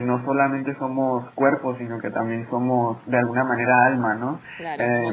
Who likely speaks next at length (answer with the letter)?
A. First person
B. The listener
B